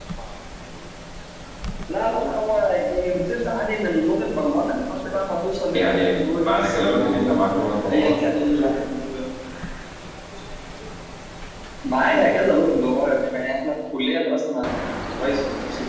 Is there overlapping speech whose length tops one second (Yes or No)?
Yes